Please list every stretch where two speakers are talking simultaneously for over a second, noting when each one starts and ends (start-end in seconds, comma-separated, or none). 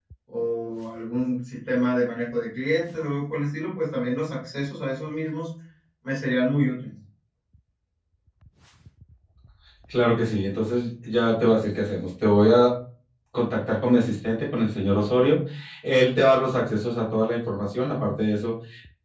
none